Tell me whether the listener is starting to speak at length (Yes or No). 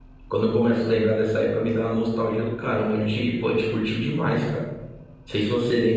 No